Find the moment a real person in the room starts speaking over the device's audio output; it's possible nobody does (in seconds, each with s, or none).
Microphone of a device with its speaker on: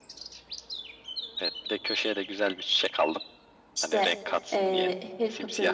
3.7 s